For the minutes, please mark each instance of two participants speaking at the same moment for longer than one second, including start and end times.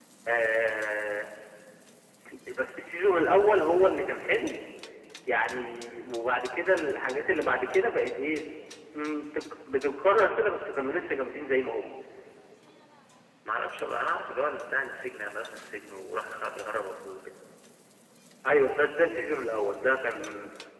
none

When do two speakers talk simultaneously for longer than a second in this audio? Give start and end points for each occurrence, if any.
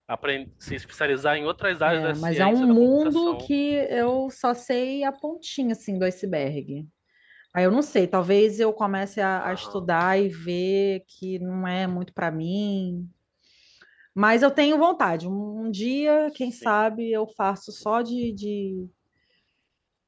1.9-3.5

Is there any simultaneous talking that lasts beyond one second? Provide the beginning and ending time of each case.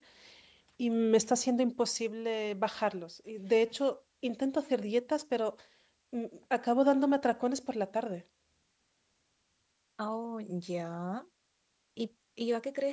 none

